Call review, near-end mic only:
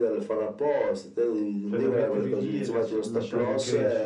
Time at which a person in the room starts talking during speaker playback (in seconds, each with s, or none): 1.6 s